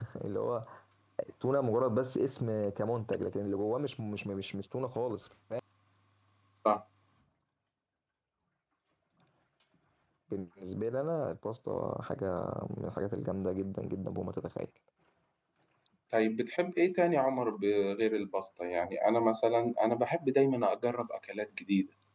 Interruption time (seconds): none

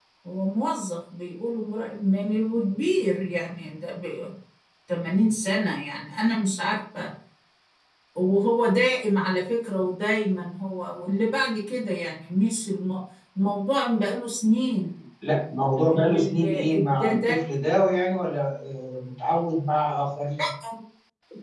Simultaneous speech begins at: 15.9 s

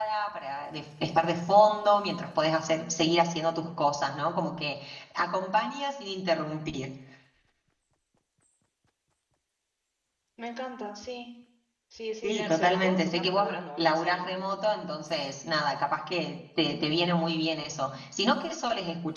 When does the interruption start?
12.2 s

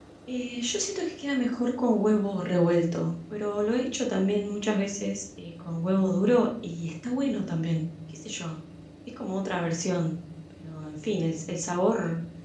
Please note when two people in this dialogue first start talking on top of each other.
none

